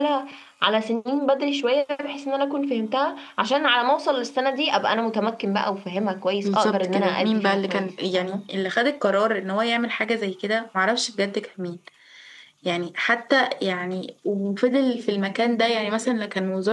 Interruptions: present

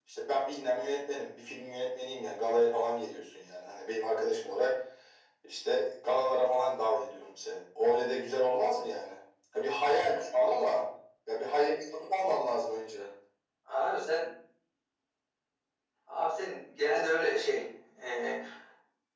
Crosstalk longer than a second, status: none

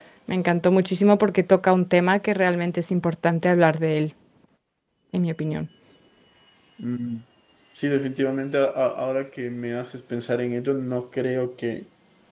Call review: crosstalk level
none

